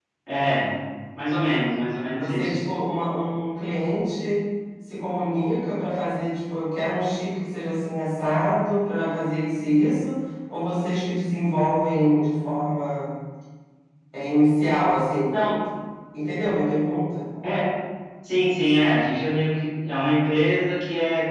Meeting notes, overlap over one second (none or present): none